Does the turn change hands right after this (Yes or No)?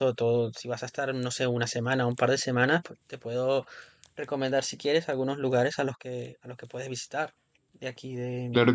Yes